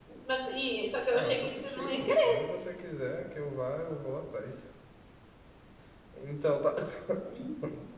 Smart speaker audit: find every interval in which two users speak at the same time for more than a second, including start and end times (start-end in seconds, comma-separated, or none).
1.1-2.4